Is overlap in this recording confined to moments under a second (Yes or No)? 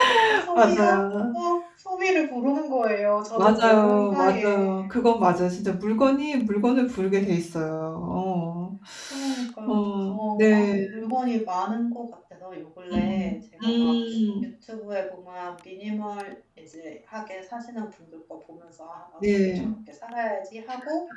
No